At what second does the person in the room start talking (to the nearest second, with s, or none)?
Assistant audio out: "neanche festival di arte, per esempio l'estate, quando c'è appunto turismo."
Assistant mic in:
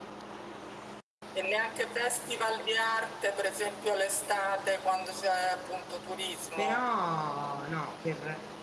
7 s